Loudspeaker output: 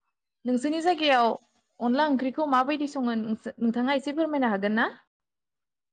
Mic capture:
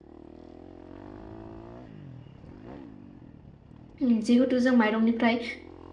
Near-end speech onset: 4 s

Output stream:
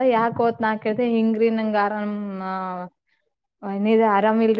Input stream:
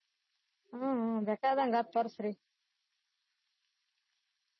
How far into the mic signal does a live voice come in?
1 s

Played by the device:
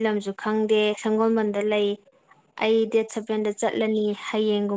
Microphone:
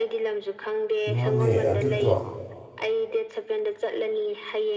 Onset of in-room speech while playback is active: 1 s

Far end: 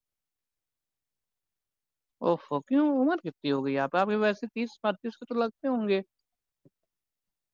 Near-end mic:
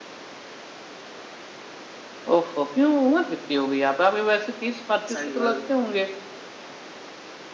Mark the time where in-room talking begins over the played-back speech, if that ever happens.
5 s

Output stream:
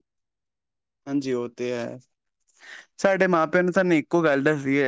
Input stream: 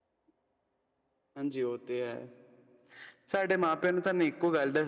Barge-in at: none

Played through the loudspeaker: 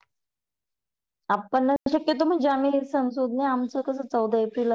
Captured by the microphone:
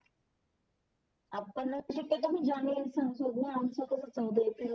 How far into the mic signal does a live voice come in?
none

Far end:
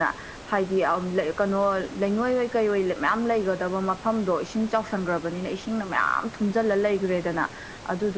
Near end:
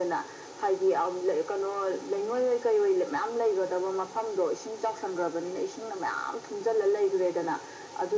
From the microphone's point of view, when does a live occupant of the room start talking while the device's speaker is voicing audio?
none

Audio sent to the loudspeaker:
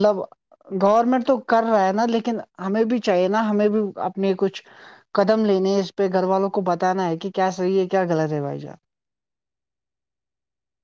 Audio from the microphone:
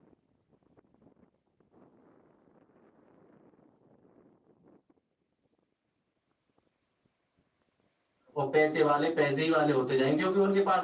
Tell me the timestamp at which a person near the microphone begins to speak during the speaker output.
8 s

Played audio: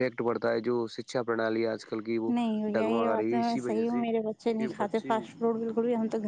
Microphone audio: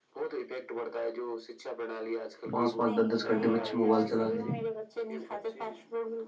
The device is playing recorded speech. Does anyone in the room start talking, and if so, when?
3 s

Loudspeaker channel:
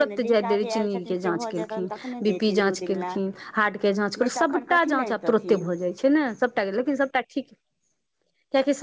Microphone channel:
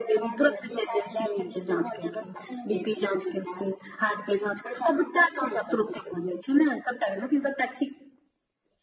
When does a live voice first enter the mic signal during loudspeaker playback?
none

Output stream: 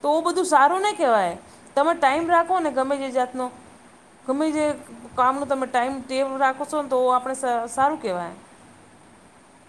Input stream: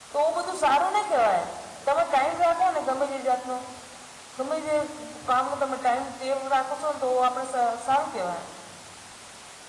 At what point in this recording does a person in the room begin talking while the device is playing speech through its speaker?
none

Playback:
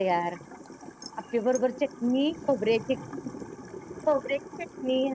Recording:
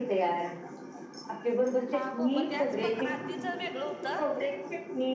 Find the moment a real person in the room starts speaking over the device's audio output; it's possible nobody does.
2 s

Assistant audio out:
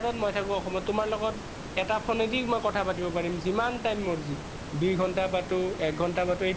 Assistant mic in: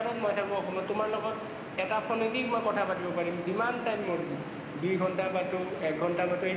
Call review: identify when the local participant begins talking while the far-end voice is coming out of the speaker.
none

